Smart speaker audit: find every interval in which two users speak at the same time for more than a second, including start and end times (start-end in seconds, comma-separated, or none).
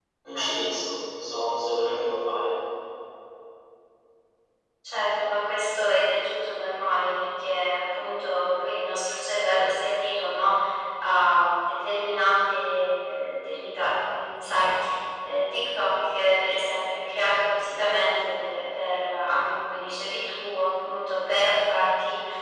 none